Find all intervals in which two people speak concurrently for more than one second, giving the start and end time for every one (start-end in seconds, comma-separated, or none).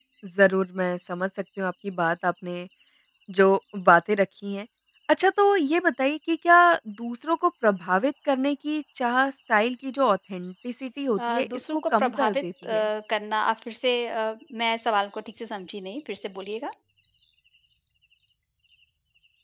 11.2-12.9